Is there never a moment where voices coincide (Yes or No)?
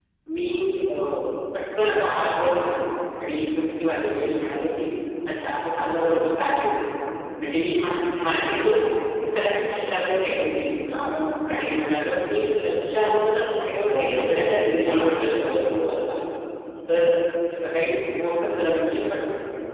No